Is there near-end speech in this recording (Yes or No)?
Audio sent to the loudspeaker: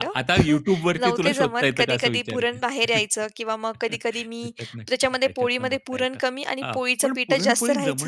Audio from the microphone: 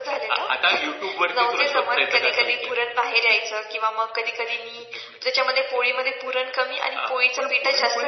No